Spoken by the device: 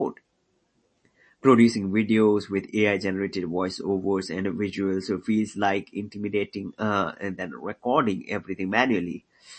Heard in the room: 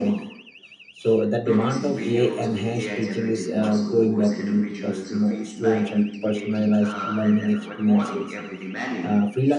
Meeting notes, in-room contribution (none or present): present